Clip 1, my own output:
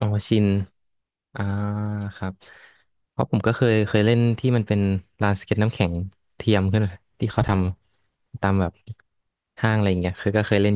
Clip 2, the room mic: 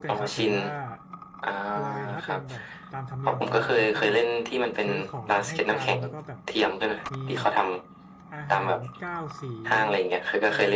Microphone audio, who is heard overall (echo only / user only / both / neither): both